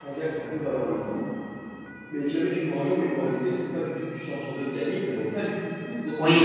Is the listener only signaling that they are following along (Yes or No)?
No